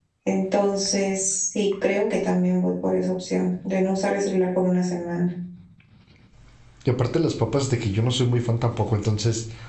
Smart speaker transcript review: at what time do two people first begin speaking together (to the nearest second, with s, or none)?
none